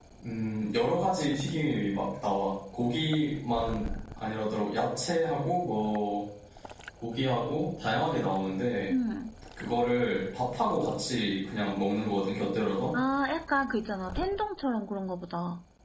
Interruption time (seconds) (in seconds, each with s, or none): none